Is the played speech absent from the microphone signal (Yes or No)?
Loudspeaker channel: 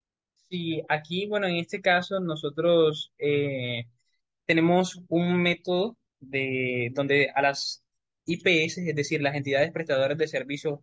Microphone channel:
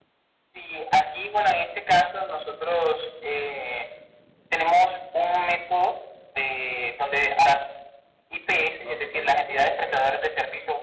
No